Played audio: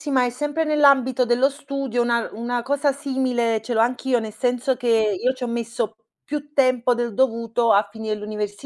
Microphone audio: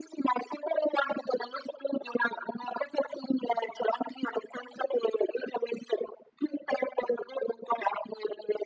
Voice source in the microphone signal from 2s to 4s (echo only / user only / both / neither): echo only